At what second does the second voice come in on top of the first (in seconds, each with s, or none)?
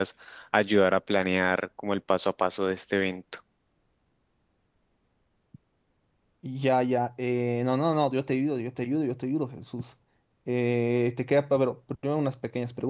none